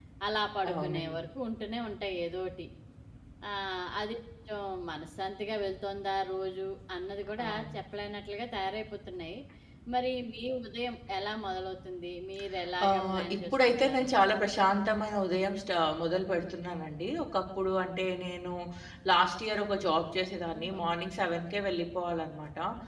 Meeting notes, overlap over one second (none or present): present